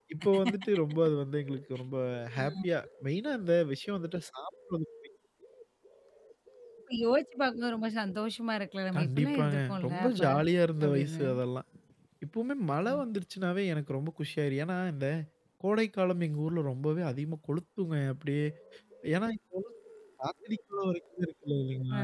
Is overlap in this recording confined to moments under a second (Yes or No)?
No